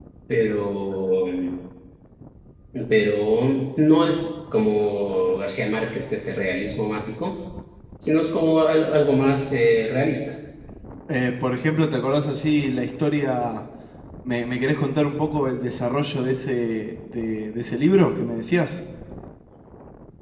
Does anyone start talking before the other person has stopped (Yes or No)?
No